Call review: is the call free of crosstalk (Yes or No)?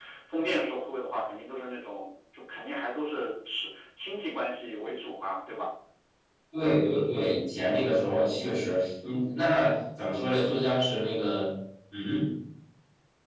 Yes